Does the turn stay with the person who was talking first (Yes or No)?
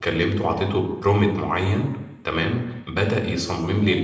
Yes